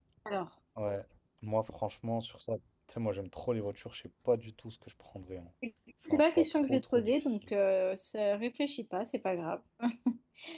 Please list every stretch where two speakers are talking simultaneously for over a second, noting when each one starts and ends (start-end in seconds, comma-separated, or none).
6.1-7.3